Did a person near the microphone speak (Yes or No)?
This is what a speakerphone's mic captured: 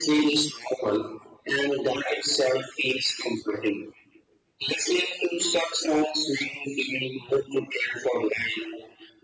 No